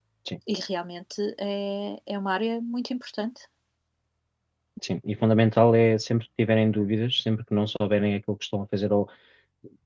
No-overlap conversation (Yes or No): Yes